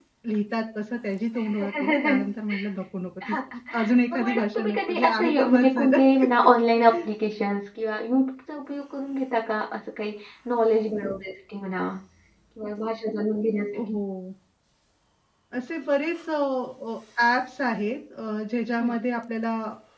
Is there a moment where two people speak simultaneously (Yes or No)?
Yes